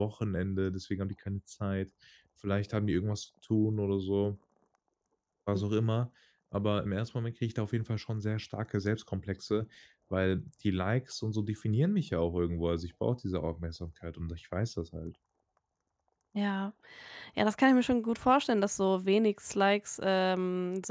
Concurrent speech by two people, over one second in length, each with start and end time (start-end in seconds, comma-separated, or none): none